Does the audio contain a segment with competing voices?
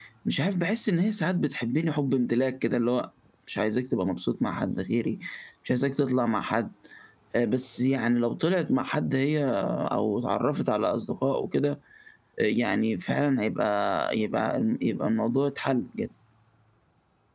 No

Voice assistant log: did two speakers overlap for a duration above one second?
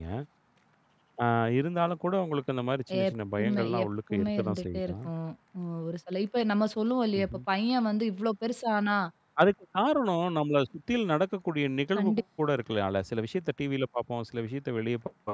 Yes, from 3.1 s

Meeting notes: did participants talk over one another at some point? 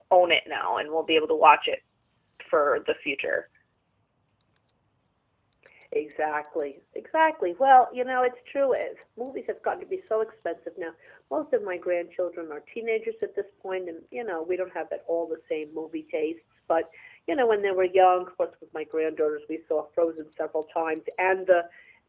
No

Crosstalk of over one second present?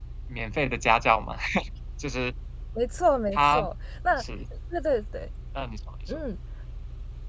No

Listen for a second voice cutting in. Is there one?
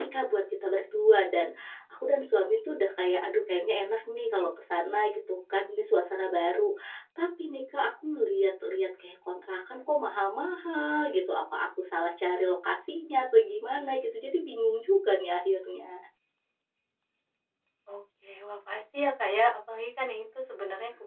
No

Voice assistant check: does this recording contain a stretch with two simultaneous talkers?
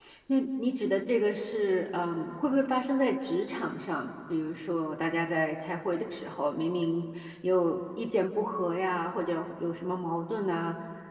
No

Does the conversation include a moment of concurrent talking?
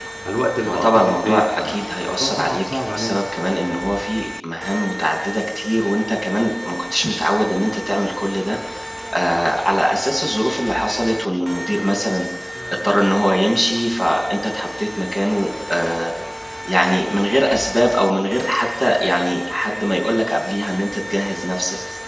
Yes, from 0.6 s

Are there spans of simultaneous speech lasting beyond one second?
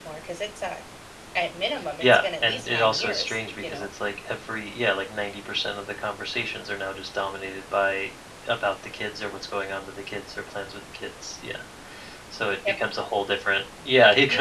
Yes, from 2.0 s

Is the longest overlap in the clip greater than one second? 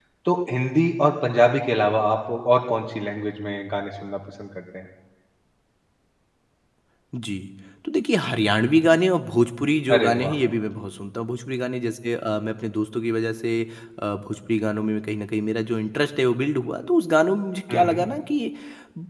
No

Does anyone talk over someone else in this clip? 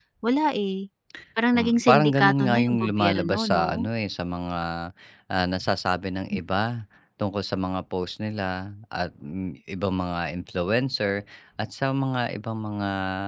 Yes, from 1.6 s

